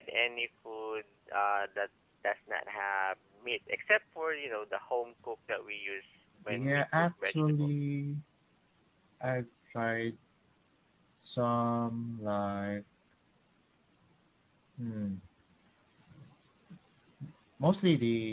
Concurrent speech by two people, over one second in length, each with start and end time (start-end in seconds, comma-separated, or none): 6.5-7.7